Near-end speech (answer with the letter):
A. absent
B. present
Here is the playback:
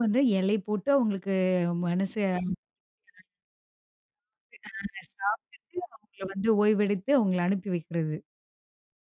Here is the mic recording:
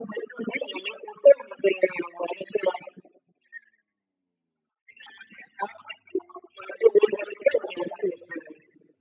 A